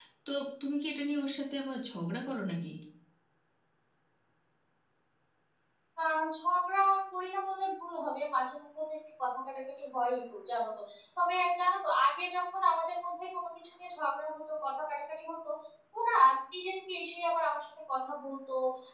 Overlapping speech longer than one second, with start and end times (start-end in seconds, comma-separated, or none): none